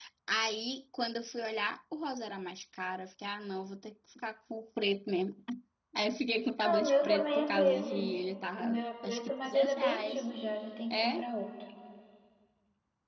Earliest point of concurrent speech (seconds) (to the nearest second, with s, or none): 7 s